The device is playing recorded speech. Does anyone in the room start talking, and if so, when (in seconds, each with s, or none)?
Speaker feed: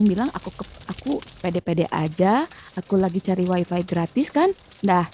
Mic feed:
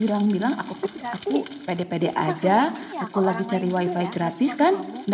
0.7 s